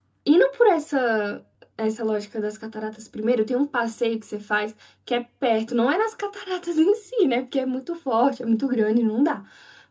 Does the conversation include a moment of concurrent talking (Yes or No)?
No